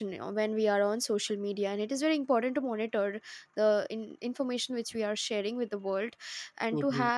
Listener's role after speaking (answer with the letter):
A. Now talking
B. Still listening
B